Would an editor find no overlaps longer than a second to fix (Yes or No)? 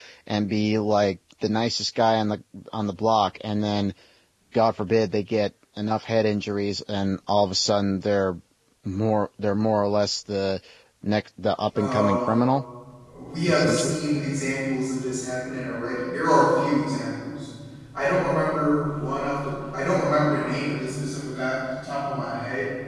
Yes